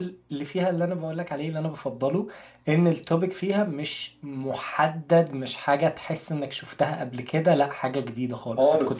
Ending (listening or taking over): taking over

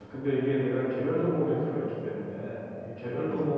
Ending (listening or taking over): listening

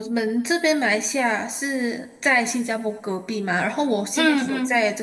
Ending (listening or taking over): listening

